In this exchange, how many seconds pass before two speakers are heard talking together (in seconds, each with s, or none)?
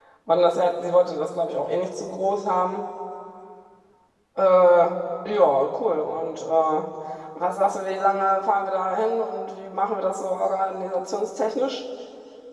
none